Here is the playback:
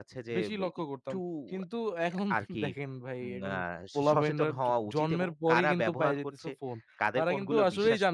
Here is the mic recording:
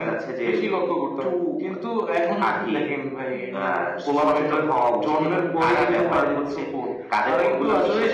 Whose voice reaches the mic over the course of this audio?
echo only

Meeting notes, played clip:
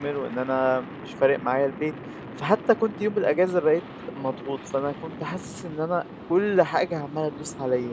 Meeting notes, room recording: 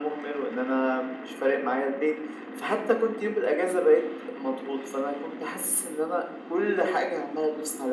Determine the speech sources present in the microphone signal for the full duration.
echo only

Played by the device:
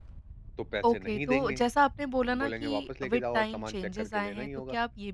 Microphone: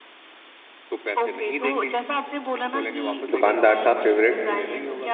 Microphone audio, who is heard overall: both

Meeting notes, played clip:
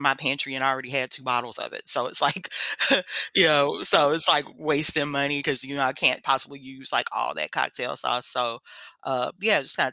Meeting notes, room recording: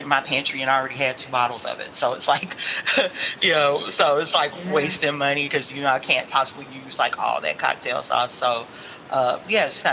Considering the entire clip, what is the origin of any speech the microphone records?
both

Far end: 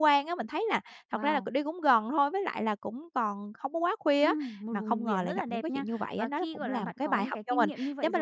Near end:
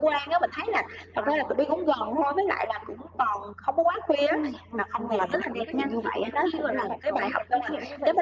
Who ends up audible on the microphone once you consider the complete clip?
echo only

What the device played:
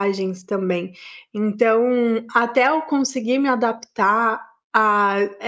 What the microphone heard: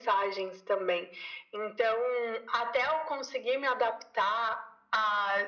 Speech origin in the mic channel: echo only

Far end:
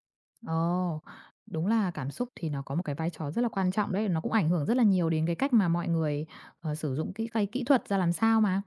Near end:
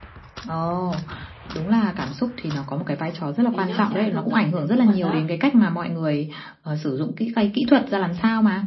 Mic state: both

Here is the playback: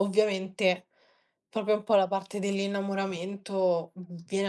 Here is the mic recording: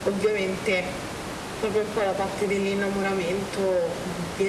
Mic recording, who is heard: echo only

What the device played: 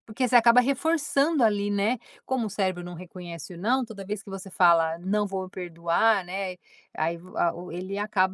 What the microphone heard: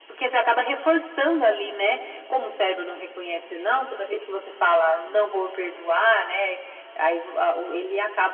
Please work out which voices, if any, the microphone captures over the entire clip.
echo only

